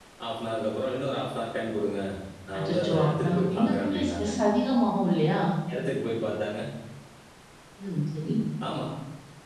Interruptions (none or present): present